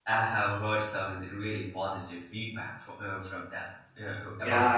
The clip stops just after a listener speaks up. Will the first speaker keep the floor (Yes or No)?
No